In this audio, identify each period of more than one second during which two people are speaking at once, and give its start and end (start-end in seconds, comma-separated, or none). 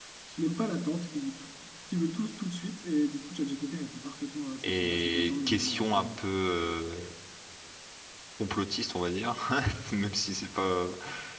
4.6-6.1